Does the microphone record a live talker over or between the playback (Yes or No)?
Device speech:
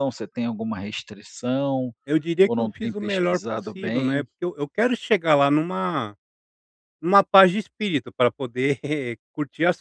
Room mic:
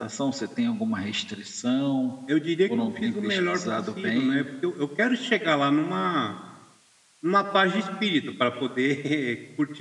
No